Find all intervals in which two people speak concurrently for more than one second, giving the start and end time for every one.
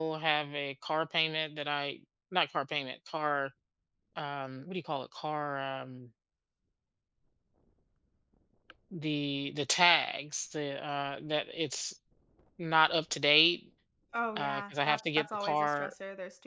14.4-15.9

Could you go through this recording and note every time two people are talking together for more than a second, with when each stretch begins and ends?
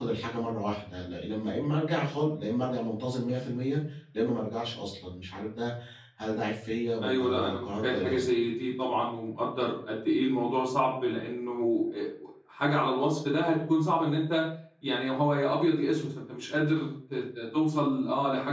7.0-8.4

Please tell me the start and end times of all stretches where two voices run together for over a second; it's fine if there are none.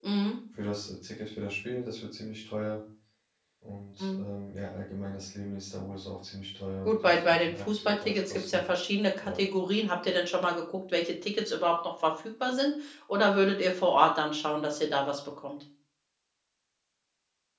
6.8-8.6

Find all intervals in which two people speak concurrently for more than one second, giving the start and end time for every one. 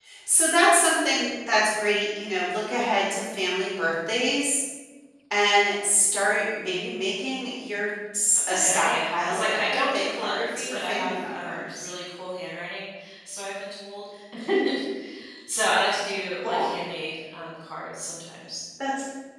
8.5-11.9

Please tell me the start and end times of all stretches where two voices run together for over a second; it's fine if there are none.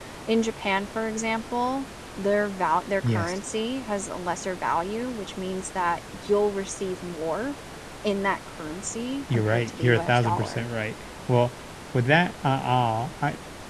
9.3-10.6

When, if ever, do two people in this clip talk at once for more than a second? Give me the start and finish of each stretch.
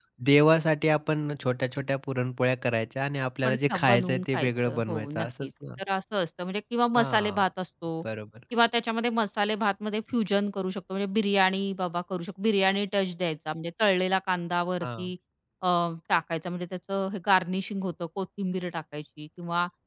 3.4-5.5

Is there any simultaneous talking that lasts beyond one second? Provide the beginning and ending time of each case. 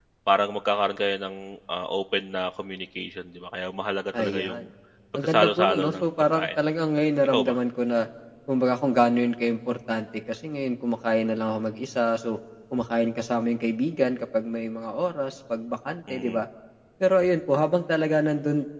5.2-6.6

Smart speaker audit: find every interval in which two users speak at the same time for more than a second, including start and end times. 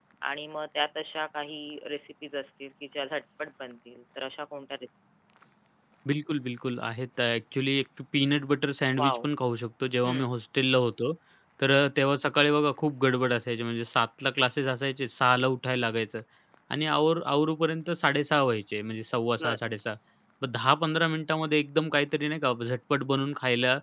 none

